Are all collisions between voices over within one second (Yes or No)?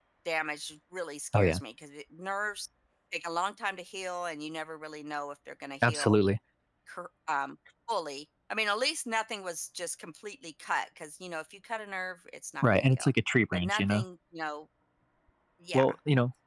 Yes